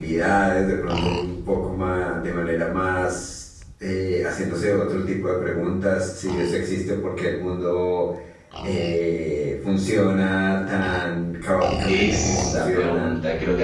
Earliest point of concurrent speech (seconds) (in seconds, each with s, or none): 11.9 s